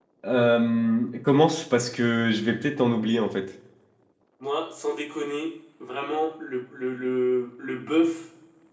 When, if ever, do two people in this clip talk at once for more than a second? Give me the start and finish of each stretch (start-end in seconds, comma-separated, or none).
none